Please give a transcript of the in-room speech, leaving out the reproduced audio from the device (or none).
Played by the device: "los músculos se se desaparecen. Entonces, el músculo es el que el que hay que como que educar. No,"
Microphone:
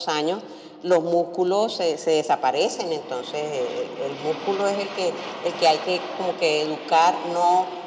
none